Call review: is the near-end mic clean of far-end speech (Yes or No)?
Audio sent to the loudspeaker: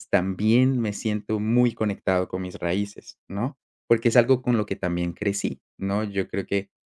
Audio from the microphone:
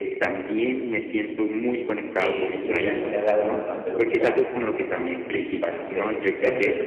No